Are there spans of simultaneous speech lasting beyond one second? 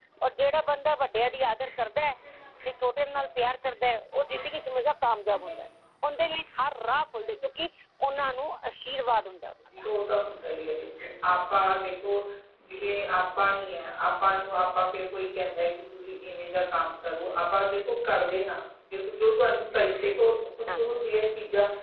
No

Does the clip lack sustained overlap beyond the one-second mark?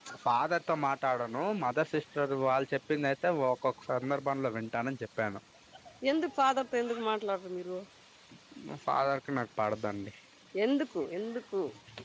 Yes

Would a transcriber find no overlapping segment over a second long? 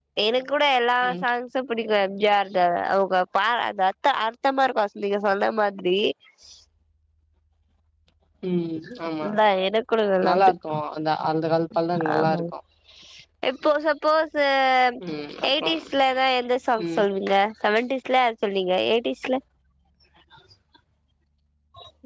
Yes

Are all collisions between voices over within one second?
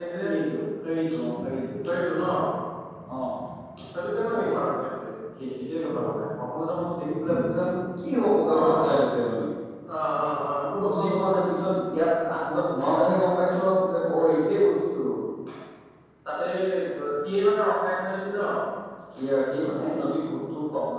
Yes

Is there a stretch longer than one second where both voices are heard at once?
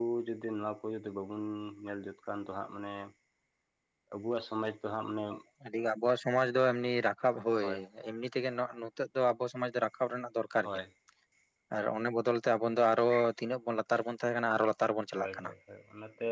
No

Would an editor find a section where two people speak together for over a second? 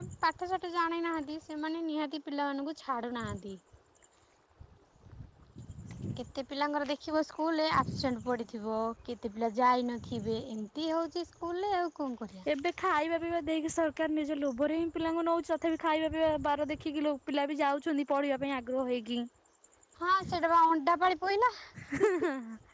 No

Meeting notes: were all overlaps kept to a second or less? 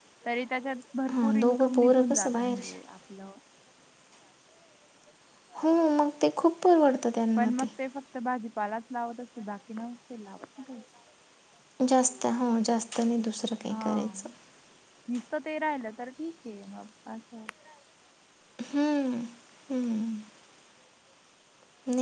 No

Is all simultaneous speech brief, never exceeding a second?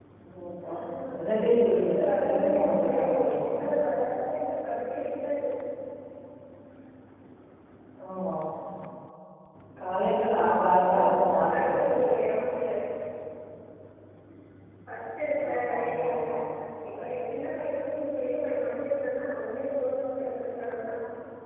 No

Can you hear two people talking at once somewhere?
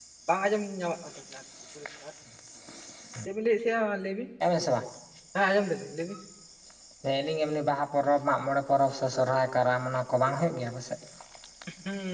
No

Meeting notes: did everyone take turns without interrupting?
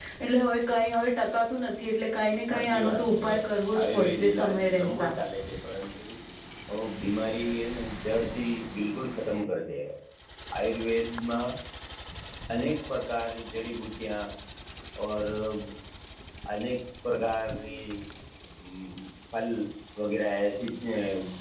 No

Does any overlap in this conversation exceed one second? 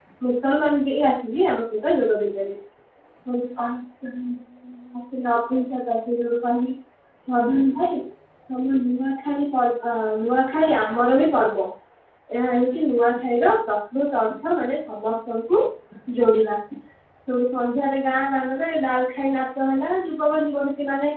No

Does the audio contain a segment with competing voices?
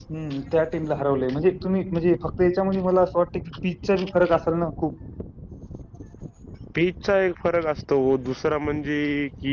No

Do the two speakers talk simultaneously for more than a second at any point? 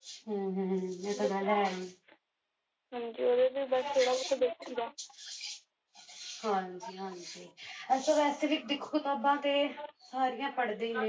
No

